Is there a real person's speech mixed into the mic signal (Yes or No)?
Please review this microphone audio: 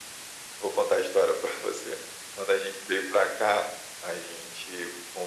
No